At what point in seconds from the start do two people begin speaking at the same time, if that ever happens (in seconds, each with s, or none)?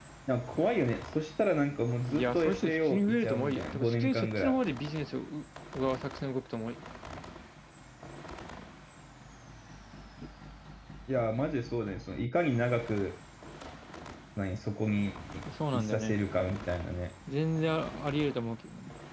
2.1 s